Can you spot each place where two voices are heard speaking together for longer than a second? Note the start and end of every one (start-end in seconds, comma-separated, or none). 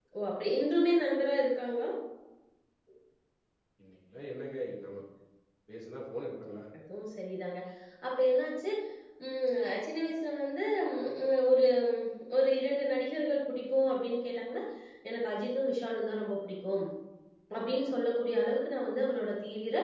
none